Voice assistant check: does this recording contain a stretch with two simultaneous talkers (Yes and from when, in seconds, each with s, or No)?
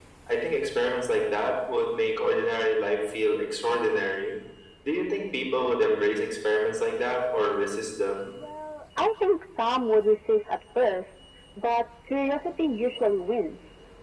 No